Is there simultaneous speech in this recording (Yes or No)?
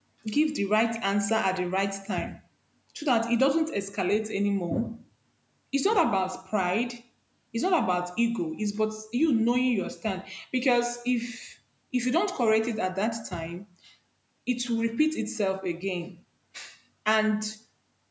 No